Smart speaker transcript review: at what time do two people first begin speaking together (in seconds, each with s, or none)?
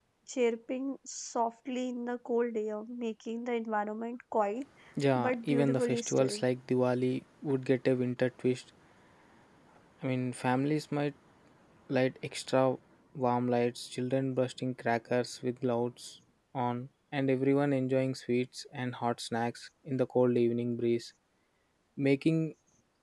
5.2 s